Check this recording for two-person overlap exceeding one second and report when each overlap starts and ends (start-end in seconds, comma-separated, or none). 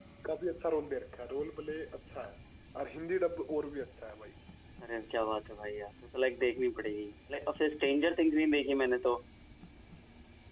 none